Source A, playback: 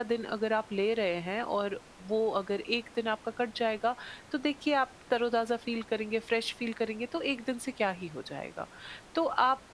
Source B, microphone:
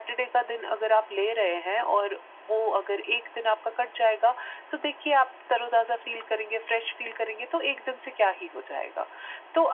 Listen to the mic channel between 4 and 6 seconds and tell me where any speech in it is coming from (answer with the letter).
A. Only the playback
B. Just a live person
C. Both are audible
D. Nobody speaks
A